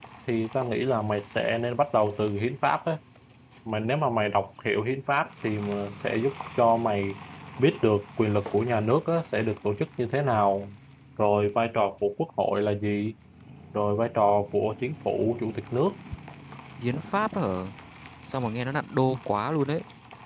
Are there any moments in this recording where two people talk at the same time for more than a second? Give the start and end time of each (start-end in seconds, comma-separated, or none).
none